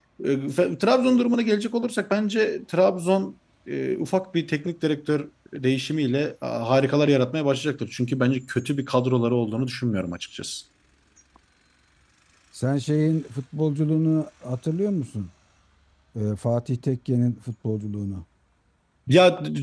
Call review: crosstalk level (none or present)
none